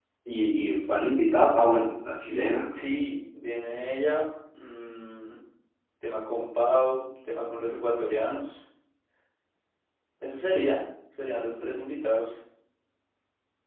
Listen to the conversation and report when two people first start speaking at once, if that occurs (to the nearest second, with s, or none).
none